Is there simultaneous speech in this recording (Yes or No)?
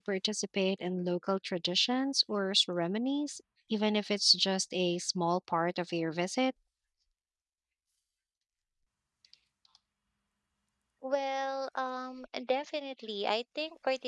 No